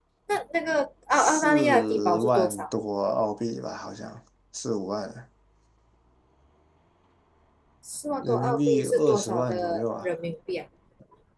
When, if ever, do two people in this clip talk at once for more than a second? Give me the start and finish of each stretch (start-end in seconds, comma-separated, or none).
1.1-2.6, 8.2-10.1